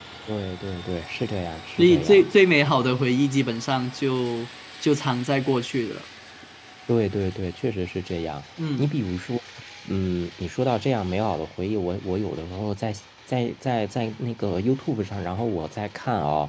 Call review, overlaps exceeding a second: none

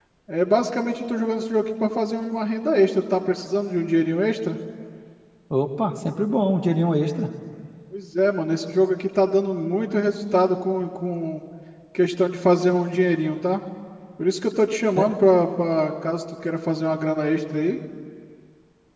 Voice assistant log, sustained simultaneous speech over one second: none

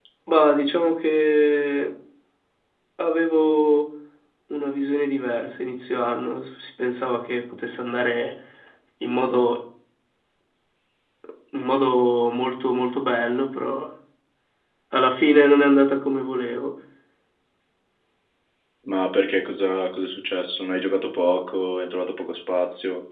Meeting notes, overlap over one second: none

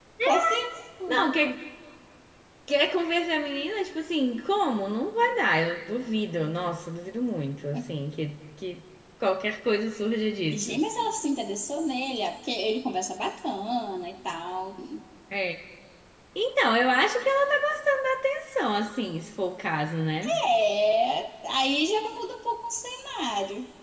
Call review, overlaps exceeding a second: none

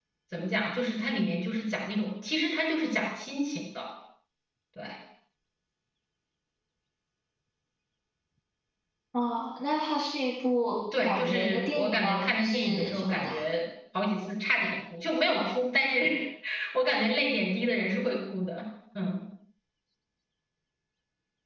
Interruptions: present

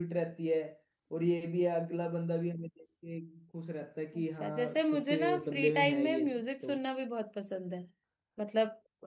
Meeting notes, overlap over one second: present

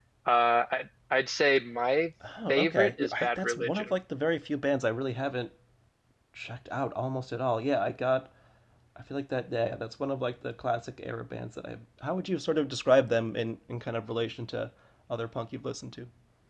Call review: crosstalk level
present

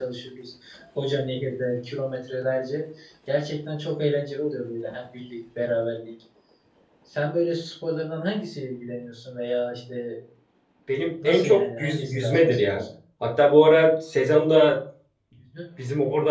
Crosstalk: present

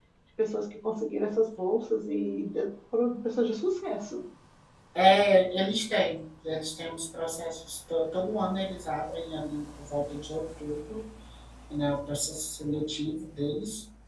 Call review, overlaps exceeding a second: none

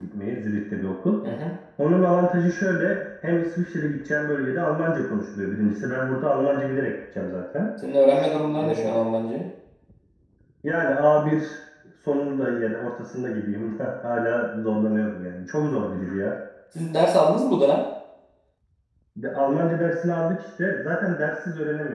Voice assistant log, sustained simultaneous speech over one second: none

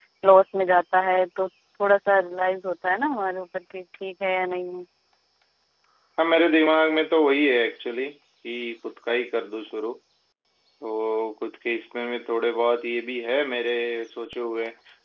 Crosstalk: none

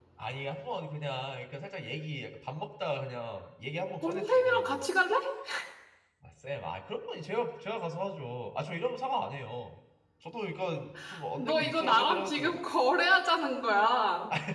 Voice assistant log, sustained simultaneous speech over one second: present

